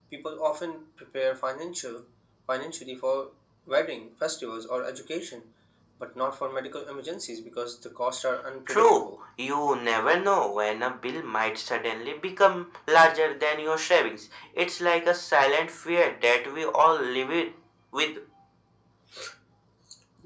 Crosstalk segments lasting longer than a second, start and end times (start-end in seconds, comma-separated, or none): none